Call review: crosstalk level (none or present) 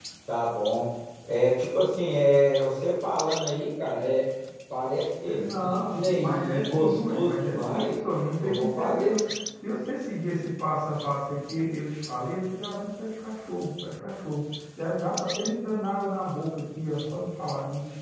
present